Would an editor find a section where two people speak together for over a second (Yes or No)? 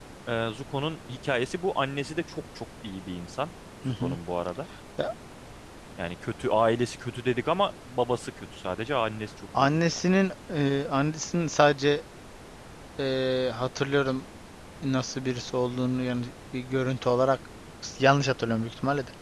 No